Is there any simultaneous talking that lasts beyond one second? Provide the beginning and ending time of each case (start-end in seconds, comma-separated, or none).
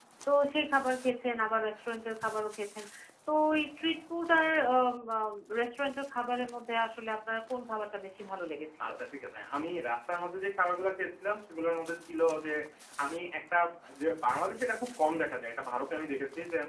none